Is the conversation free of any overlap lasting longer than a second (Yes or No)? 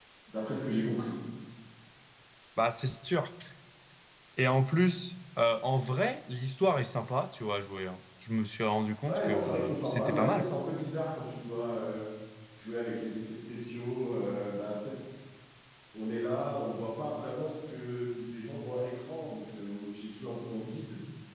No